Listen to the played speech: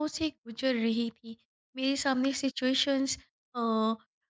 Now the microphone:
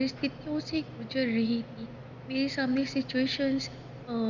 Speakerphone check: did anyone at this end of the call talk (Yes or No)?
No